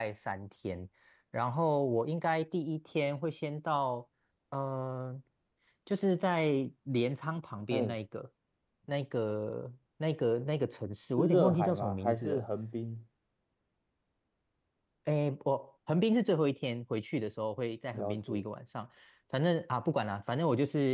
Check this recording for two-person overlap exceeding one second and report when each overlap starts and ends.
11.2-12.4

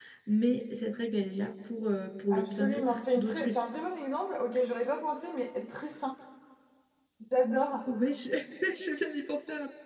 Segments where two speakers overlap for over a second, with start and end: 2.3-3.6

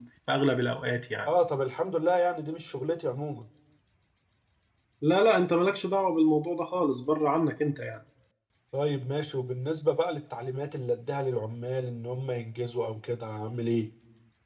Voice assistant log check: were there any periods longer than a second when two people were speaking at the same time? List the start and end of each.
none

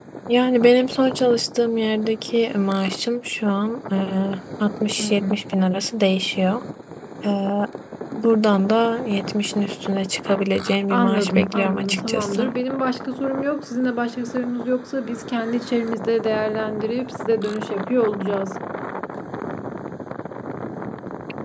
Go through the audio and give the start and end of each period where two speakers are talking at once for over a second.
10.9-12.5

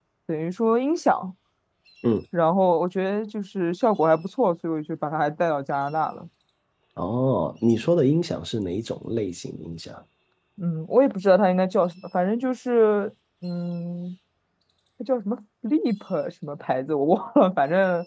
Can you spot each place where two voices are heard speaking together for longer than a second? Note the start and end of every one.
none

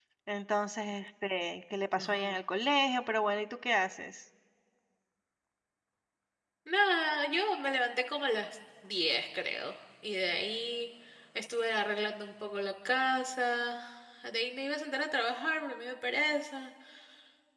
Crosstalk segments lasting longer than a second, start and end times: none

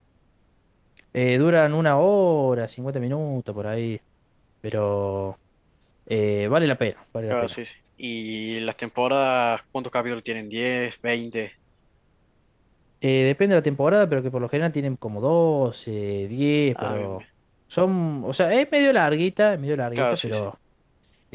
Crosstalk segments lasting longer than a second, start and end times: none

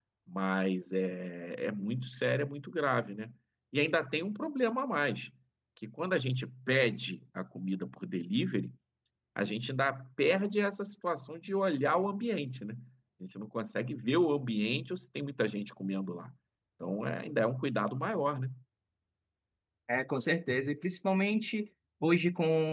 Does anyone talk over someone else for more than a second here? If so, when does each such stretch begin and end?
none

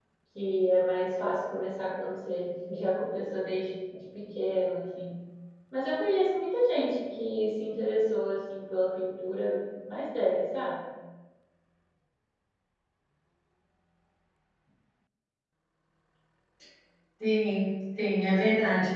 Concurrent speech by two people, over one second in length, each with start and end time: none

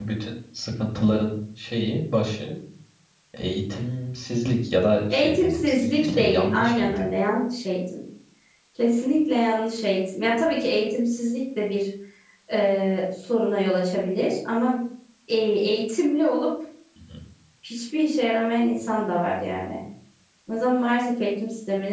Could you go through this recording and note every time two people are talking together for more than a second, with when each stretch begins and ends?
5.1-6.9

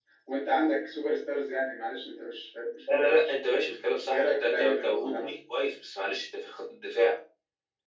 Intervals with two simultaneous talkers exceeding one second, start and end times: 4.0-5.3

